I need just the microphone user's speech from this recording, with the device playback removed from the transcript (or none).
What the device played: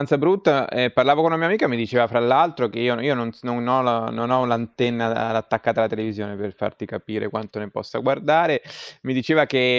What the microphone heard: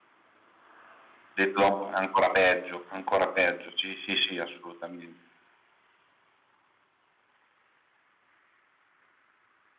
detto da un p ancora peggio, ancora peggio. Sì, sì, sì, assolutamen